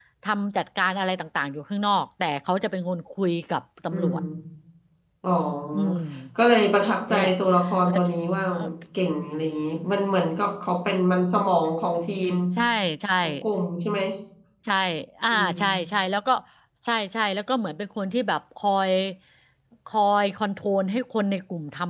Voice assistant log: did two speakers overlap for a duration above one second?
No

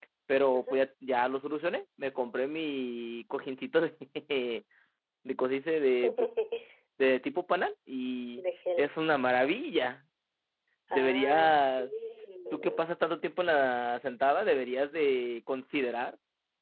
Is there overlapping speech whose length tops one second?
Yes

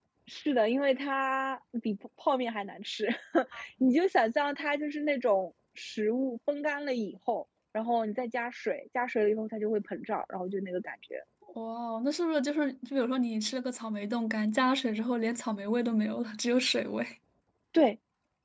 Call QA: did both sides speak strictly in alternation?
Yes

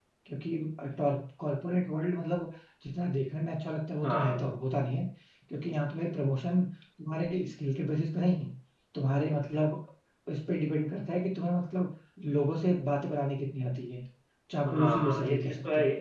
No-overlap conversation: No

